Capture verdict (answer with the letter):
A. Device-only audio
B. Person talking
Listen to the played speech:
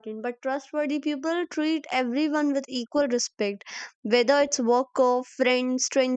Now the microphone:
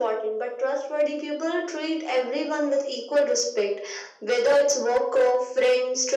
A